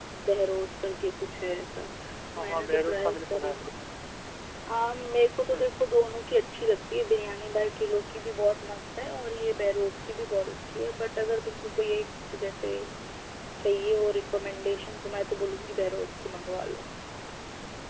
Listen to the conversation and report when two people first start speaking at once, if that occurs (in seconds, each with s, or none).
2.4 s